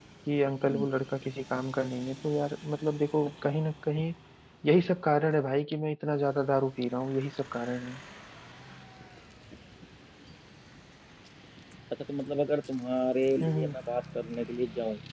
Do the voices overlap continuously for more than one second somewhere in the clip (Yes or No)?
No